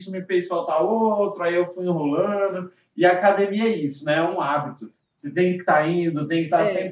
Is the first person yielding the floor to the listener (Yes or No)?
No